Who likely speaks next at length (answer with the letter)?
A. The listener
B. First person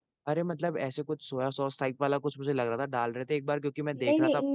A